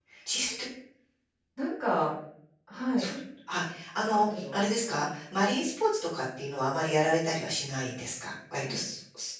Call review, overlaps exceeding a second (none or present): none